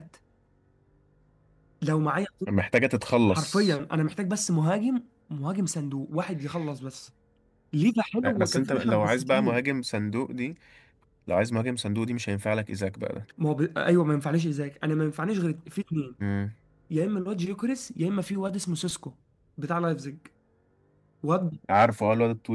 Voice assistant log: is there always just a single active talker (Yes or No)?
No